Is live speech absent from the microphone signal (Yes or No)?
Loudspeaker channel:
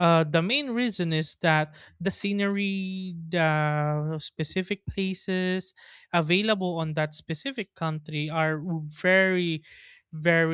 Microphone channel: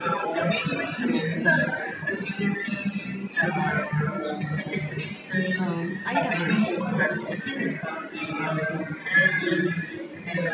No